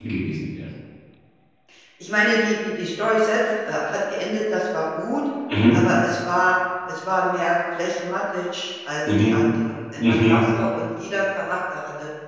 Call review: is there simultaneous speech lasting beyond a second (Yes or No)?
No